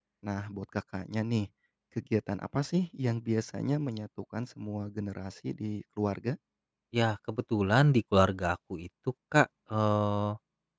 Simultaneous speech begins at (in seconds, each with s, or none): none